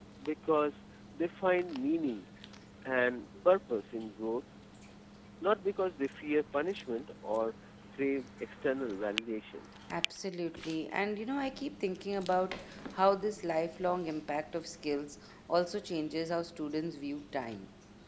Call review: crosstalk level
none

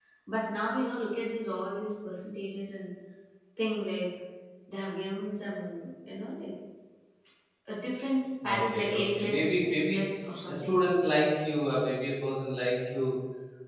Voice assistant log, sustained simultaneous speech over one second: present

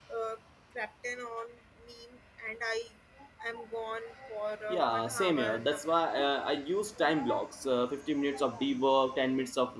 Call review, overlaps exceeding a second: present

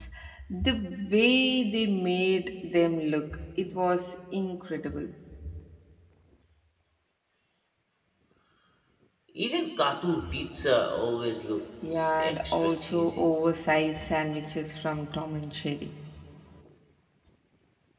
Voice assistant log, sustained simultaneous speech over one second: present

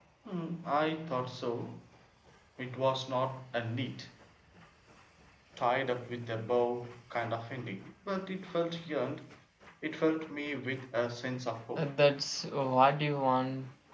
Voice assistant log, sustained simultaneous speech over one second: none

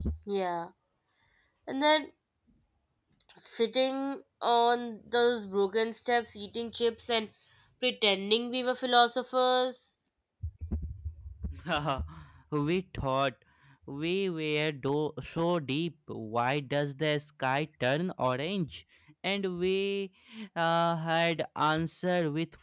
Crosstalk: none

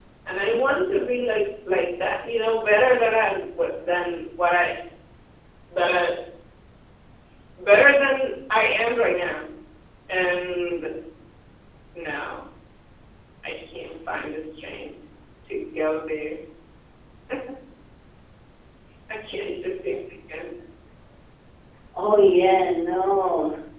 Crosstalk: none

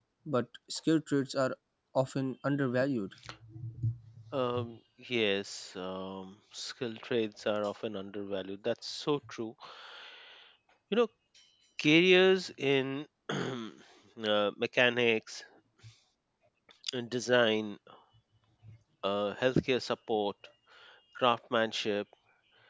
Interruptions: none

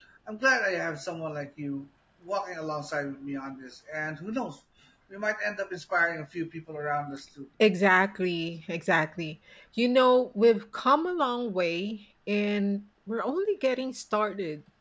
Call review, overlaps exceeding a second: none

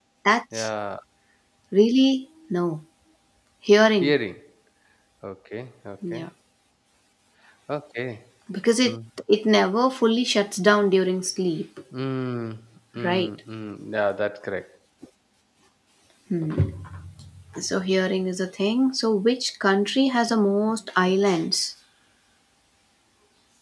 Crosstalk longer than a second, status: none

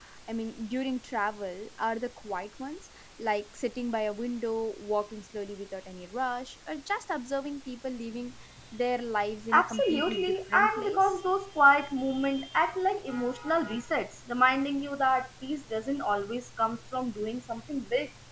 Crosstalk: present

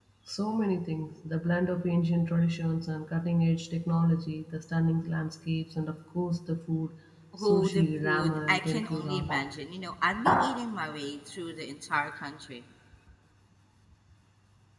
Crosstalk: present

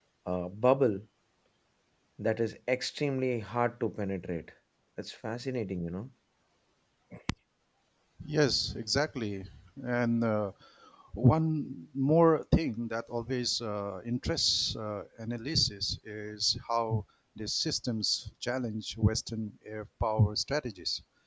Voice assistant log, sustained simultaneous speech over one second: none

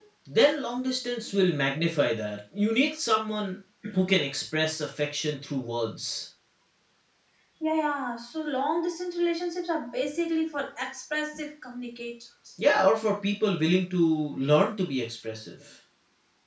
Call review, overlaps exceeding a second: none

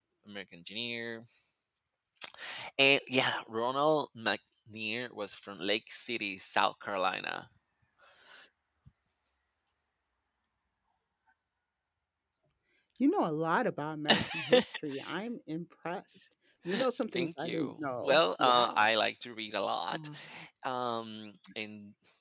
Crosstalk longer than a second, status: present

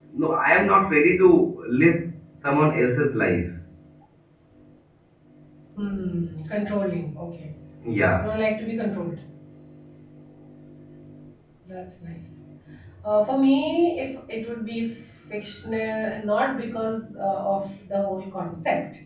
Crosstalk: none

